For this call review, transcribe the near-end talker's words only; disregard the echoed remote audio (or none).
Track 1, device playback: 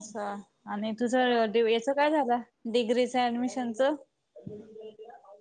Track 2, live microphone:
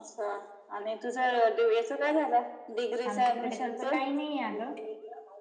आमच्या इकडे तसं नाही अगं.